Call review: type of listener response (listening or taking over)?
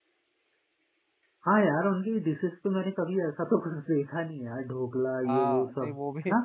taking over